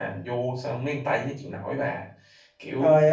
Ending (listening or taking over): taking over